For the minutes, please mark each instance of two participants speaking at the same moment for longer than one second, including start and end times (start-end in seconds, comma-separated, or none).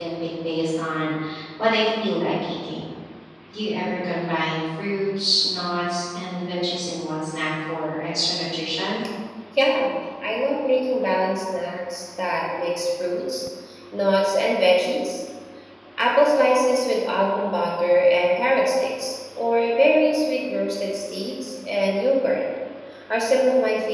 none